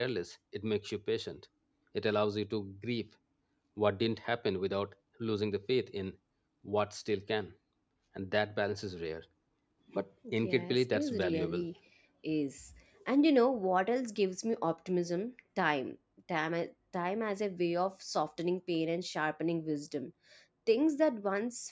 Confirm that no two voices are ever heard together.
No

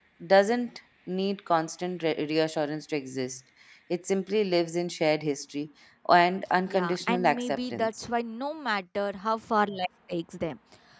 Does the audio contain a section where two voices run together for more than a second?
Yes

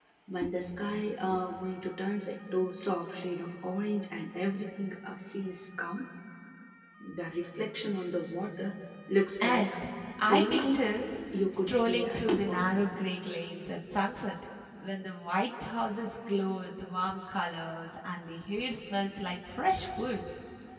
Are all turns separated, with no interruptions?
No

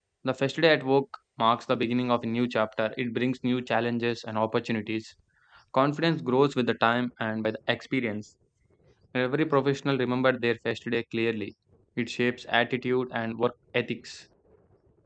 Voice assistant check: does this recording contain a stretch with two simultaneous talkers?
No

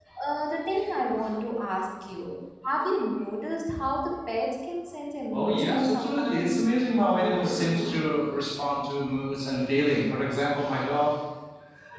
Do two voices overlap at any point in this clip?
Yes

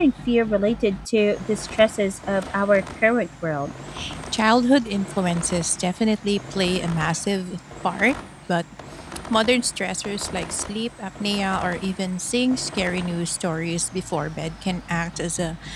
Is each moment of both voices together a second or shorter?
Yes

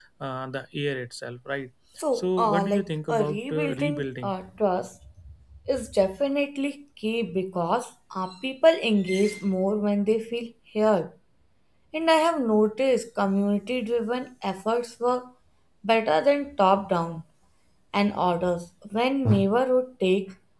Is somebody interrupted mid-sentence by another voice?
Yes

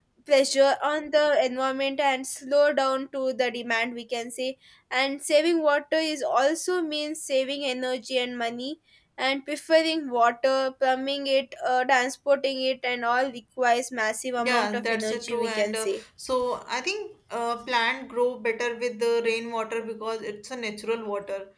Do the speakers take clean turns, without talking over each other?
No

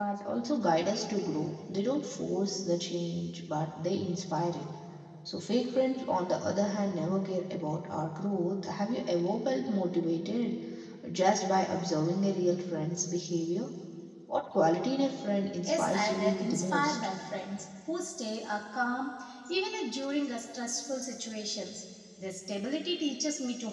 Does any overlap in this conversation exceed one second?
Yes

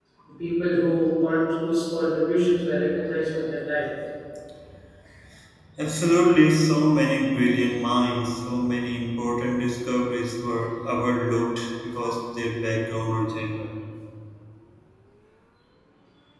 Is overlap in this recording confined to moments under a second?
Yes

